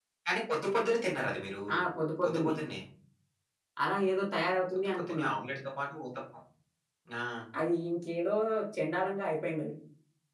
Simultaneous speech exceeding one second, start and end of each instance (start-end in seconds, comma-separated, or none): none